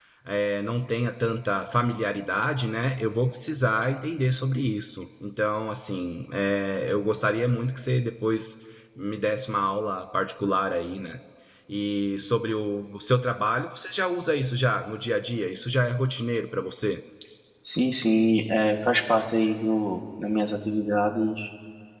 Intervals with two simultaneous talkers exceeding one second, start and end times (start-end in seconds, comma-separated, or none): none